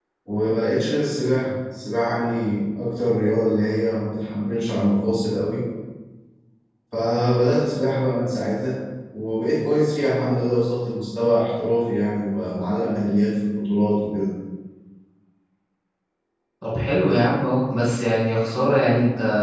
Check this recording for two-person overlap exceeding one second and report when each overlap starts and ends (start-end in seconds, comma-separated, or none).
none